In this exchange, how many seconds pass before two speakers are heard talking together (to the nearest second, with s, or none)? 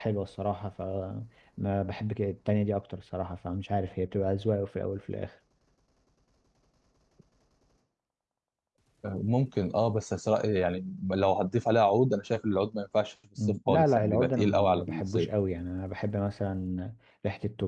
13 s